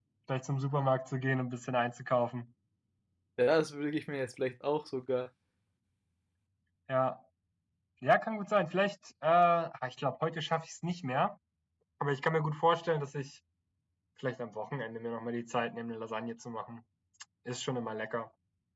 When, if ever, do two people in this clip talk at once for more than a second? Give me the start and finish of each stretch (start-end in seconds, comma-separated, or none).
none